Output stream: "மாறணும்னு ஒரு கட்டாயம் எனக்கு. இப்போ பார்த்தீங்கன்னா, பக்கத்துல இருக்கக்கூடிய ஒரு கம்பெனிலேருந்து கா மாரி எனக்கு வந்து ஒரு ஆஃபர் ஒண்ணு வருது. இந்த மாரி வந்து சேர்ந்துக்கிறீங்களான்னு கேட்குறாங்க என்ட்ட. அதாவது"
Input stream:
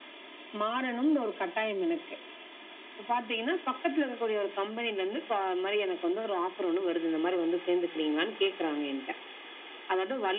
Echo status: present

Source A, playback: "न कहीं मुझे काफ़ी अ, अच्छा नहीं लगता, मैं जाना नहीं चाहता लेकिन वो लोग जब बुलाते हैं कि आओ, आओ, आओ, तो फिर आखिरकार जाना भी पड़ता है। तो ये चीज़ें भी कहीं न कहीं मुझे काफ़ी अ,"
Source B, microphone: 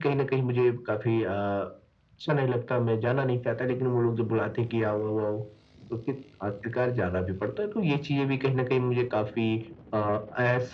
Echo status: present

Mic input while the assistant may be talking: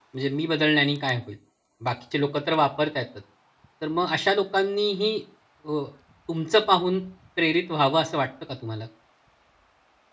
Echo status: none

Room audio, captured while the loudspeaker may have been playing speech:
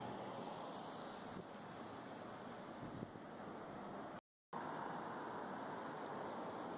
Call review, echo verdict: none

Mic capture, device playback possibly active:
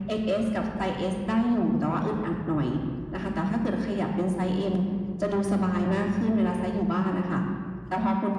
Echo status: present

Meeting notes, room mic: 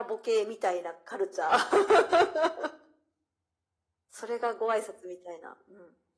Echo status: present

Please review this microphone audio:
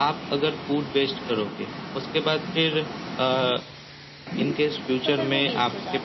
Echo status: present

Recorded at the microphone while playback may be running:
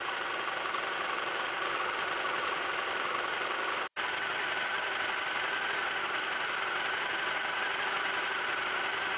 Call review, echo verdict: none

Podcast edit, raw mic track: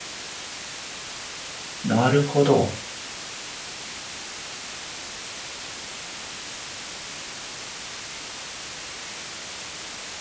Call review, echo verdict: none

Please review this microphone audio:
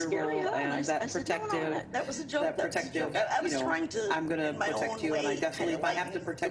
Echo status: present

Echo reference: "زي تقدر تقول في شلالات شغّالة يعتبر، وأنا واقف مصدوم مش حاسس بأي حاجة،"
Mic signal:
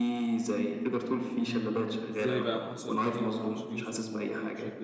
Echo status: present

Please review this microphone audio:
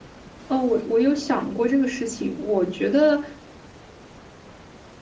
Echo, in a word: none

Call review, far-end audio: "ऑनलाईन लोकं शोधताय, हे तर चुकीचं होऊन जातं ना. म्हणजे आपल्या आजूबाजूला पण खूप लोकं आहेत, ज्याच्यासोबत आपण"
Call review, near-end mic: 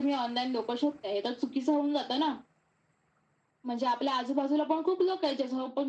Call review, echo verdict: present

